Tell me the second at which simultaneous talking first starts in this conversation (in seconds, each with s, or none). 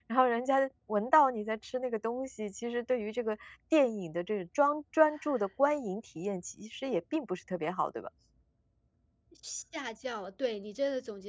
none